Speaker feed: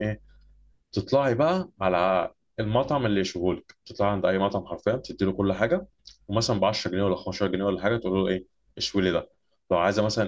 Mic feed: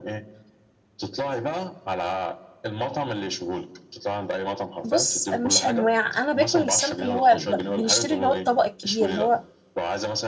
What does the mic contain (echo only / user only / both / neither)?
both